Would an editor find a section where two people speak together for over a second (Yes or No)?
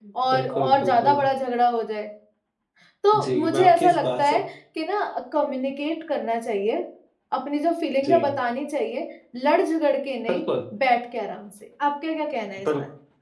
Yes